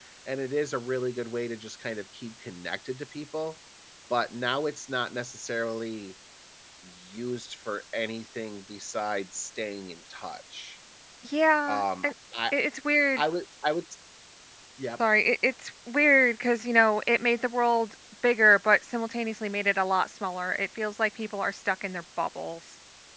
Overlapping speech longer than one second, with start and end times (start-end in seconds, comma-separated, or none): none